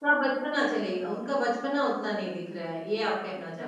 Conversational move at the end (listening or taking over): taking over